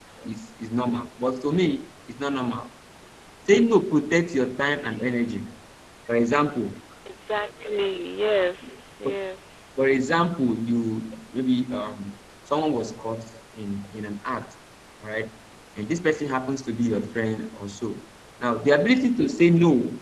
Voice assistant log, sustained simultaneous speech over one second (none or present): none